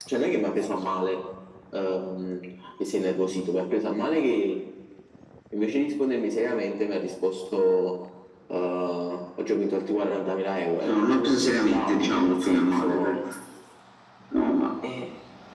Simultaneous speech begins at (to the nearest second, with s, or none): 11 s